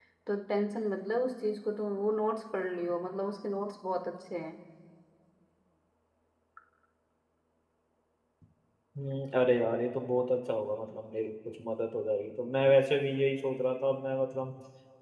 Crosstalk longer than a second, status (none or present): none